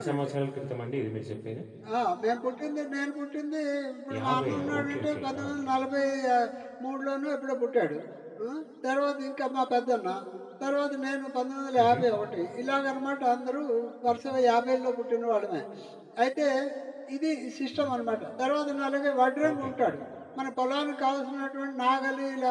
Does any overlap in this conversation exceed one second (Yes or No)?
Yes